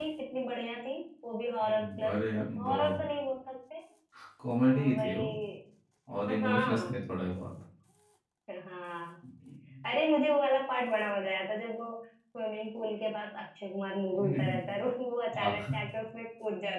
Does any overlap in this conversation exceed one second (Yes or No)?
Yes